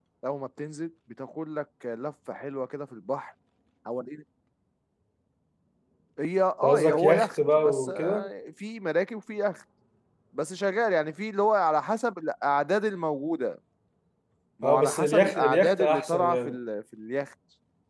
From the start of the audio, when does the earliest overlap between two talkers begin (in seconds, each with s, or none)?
6.6 s